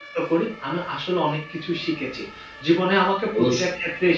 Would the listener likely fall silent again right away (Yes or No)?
Yes